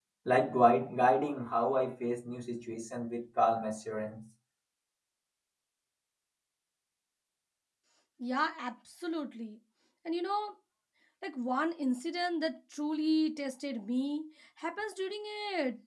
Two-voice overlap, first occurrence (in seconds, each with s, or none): none